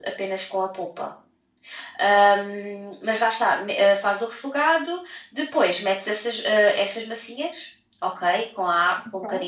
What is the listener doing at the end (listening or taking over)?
listening